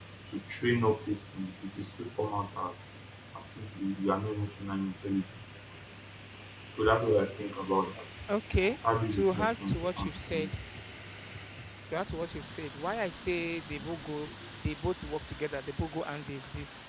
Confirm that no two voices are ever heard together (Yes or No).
No